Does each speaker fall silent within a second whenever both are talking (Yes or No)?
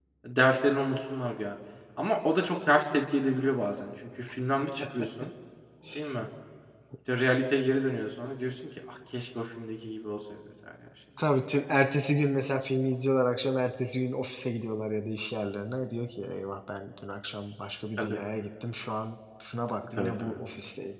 Yes